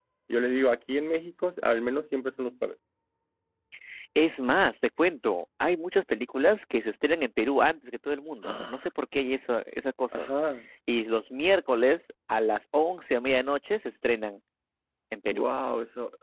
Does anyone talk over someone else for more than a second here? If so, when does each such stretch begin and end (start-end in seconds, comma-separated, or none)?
none